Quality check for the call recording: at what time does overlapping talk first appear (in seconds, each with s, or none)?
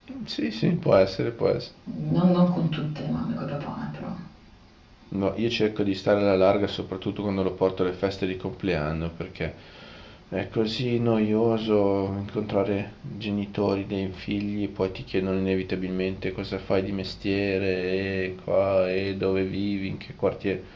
none